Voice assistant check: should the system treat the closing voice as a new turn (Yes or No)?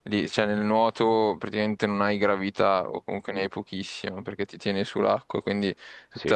No